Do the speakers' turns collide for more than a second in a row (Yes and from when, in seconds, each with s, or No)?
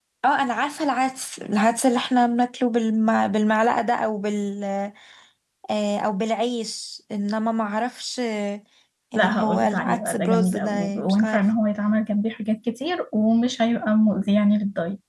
Yes, from 9.2 s